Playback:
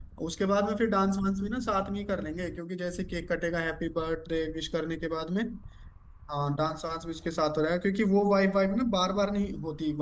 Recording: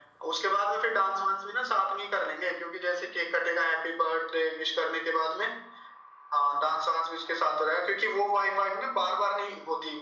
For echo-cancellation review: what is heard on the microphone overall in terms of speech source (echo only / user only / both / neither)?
echo only